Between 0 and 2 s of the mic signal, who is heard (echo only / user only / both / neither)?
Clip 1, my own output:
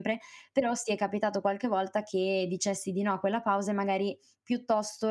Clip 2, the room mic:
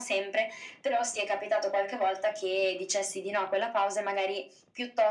echo only